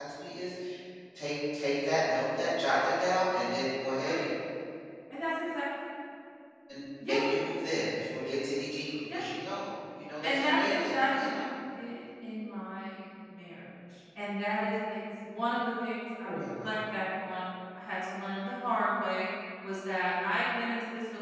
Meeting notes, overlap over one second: present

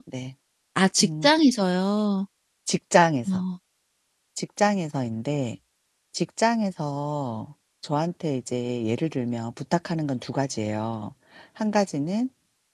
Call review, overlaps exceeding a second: none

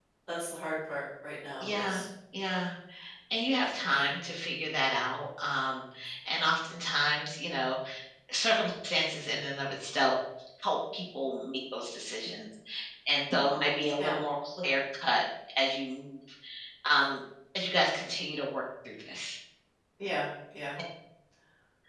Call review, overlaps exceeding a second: none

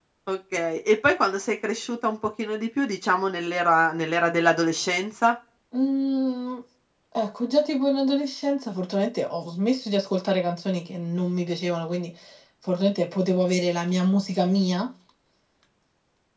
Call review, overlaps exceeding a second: none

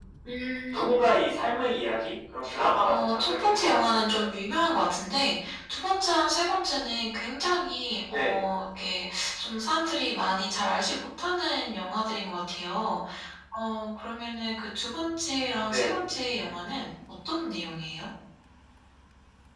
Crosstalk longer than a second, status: present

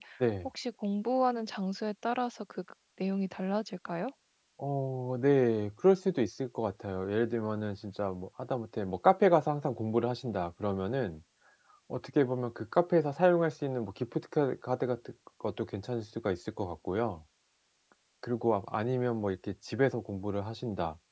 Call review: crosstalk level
none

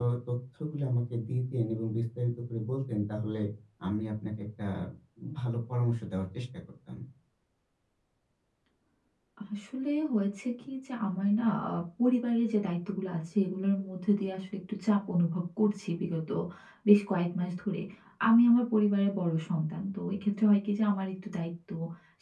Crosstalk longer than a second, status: none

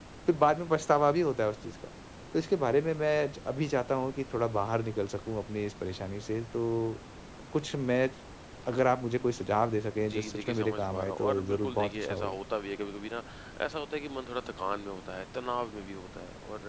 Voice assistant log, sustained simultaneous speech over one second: present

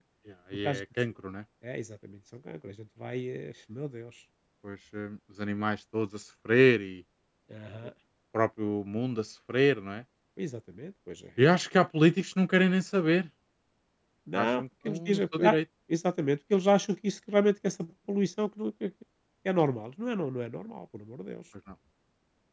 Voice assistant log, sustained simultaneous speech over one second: present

